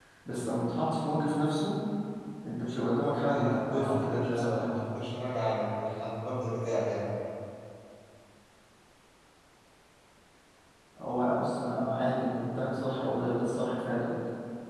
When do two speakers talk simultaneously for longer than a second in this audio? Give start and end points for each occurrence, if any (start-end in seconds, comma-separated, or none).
3.3-4.7